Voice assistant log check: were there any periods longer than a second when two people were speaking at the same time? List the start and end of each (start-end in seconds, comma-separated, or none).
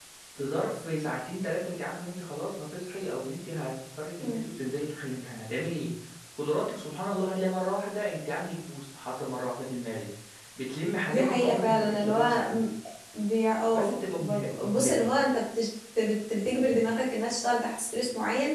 11.1-12.6, 13.7-15.1